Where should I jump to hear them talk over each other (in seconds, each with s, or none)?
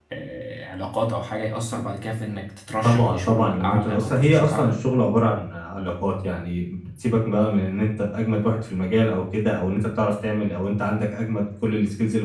2.8 s